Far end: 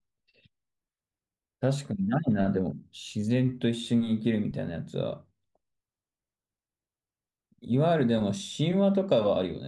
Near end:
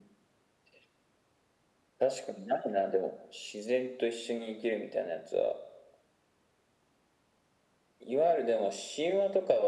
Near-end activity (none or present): none